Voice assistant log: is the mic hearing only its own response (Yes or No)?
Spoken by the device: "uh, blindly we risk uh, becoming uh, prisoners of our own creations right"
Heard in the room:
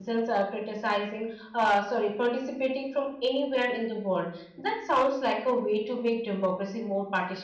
No